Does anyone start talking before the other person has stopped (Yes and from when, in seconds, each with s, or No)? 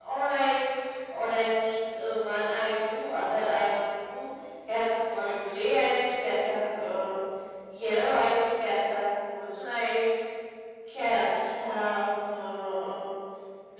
No